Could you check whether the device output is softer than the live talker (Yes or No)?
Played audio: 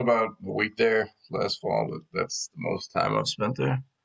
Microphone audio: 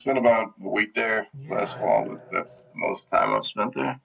No